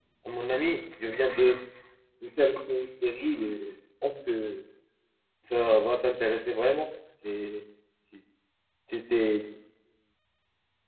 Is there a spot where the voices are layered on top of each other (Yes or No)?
No